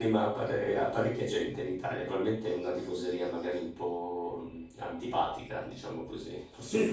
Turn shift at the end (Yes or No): Yes